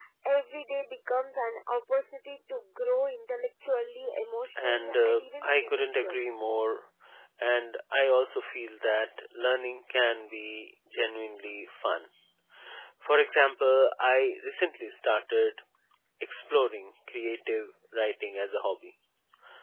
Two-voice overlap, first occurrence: 4.6 s

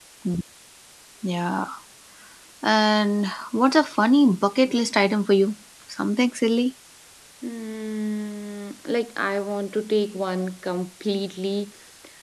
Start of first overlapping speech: none

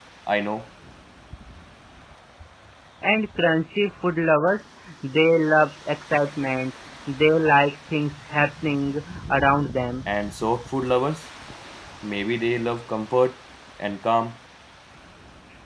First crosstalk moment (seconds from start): none

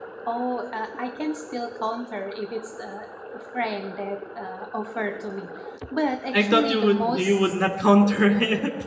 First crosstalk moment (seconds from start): 6.3 s

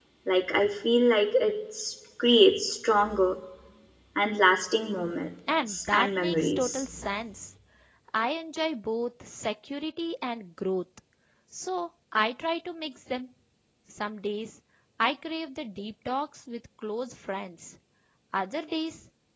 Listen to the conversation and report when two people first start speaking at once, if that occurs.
5.5 s

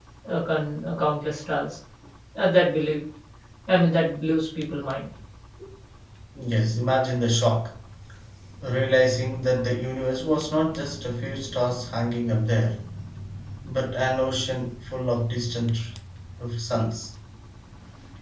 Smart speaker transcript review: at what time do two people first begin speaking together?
none

